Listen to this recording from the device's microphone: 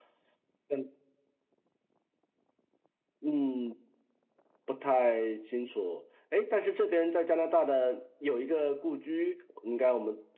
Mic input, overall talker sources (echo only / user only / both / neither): echo only